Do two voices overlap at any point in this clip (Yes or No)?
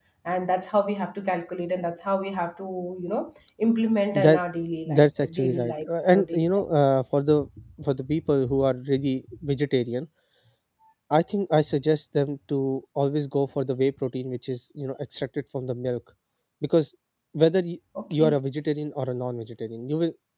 Yes